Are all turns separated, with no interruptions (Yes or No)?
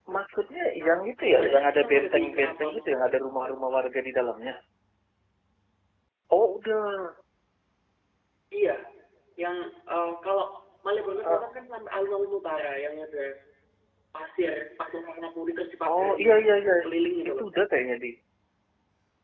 No